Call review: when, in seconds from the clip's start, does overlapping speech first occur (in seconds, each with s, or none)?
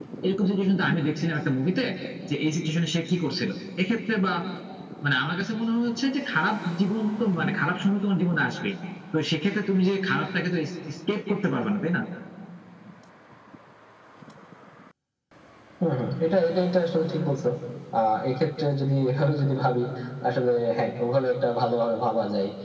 none